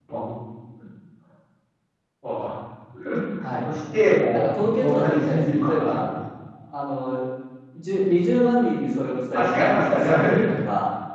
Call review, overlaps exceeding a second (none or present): present